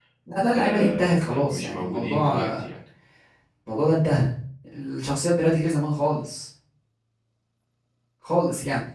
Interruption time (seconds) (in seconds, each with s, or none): 0.6 s